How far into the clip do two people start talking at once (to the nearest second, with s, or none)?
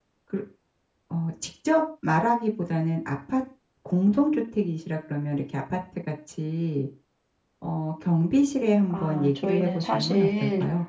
9 s